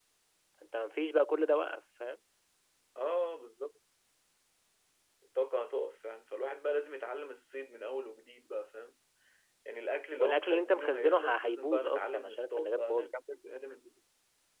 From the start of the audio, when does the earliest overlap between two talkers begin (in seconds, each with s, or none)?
10.2 s